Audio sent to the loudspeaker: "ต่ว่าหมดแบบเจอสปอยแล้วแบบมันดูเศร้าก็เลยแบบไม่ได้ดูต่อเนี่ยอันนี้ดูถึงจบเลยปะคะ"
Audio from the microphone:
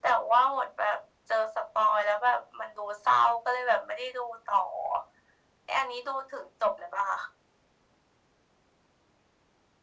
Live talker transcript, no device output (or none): none